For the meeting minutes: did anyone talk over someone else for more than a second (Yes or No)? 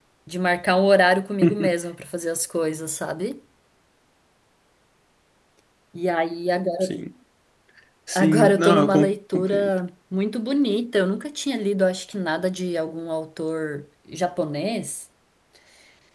Yes